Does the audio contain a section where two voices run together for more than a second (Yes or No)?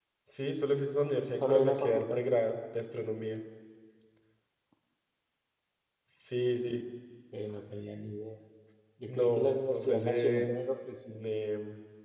Yes